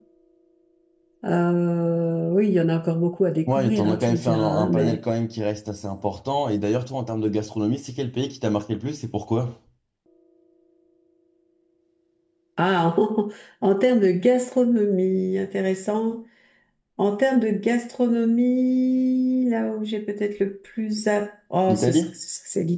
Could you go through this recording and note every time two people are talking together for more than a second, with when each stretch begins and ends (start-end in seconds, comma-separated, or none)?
3.5-5.0